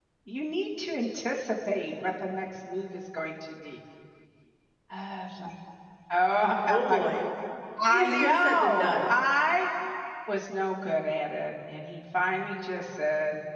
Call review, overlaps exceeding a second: present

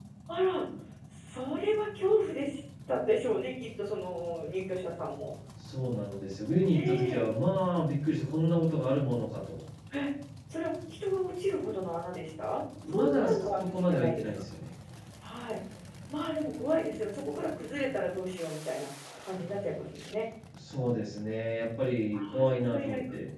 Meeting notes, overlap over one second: present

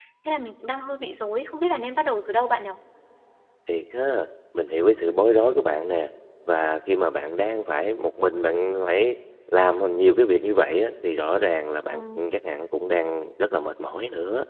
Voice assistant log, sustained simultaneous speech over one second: none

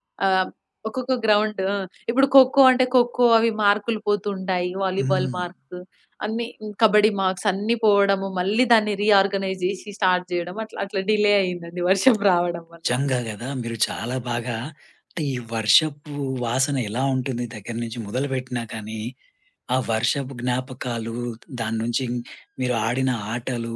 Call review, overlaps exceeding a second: none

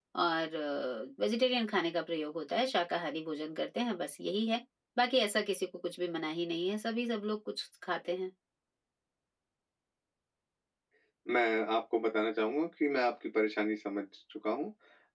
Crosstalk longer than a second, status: none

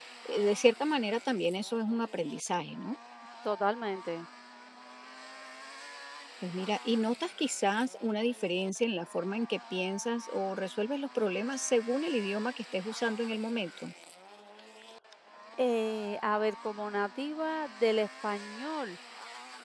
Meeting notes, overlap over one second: none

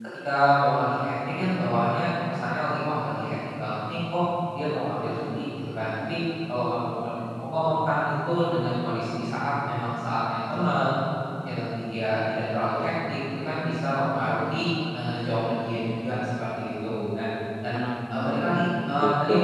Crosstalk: present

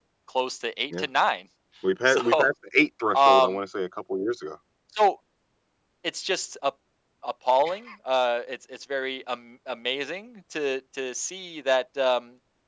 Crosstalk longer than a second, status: none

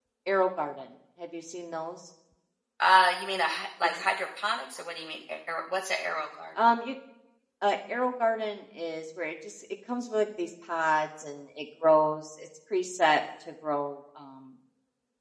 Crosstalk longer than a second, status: none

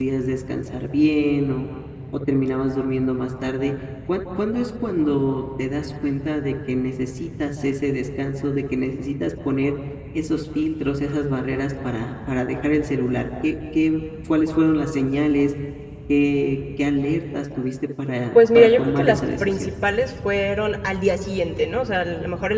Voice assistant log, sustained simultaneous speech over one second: present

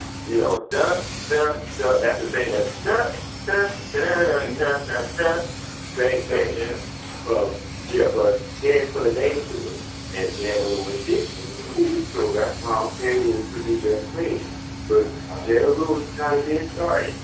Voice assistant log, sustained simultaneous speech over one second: none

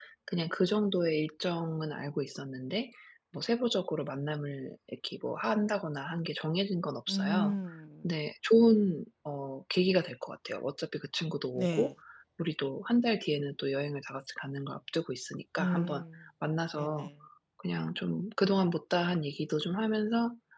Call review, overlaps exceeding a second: none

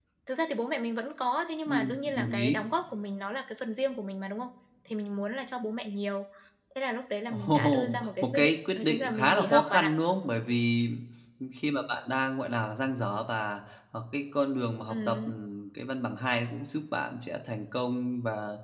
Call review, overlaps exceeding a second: present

